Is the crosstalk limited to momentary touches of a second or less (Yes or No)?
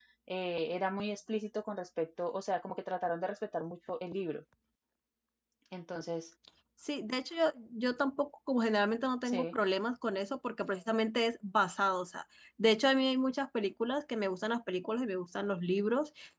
Yes